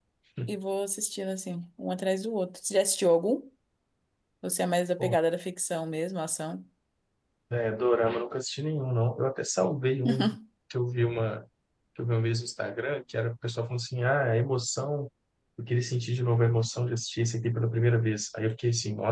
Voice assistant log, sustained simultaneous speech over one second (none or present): none